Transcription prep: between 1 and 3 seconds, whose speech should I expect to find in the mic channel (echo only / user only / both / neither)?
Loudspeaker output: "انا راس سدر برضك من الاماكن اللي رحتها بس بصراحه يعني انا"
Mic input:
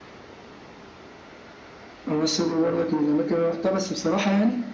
echo only